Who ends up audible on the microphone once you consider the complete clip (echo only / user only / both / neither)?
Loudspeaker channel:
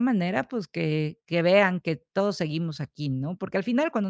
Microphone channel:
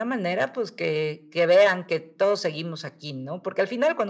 echo only